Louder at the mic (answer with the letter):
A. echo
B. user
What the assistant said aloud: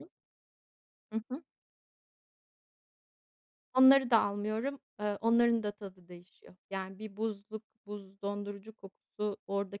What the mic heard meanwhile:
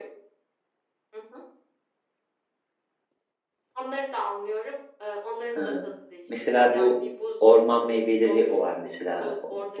B